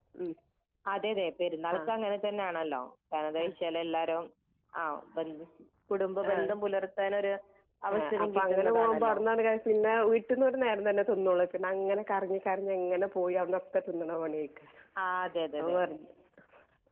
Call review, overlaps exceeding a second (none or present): present